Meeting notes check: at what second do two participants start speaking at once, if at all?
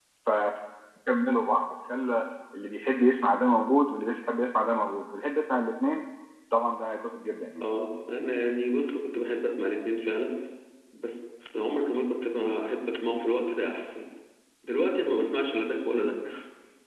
none

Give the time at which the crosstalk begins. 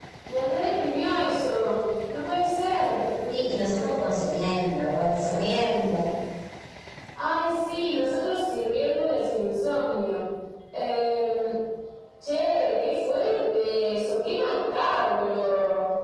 none

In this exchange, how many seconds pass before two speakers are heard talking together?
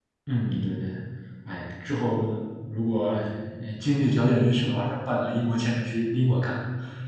none

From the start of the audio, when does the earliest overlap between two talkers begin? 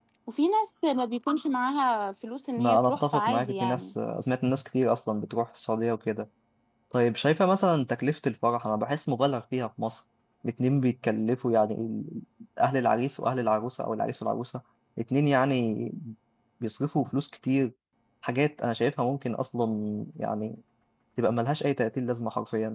2.6 s

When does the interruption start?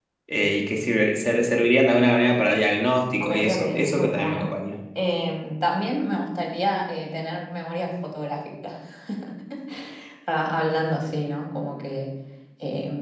3.2 s

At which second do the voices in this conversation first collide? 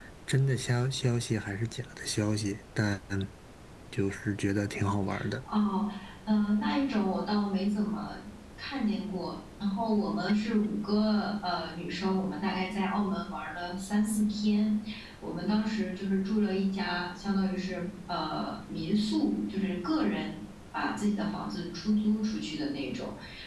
none

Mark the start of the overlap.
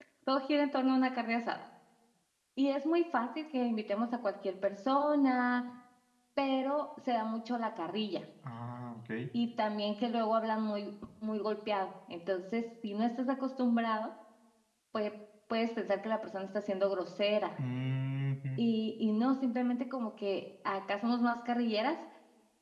none

